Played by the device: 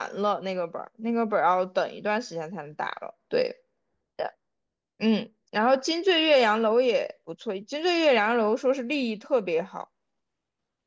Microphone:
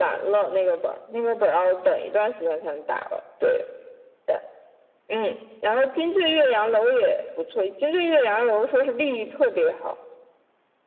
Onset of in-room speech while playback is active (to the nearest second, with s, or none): none